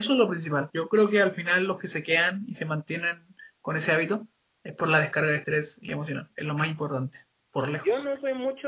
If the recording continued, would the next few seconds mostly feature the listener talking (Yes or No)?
Yes